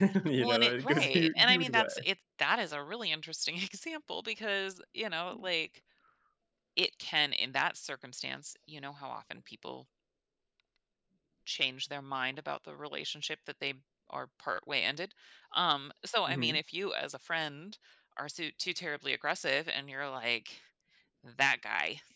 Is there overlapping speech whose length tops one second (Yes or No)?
Yes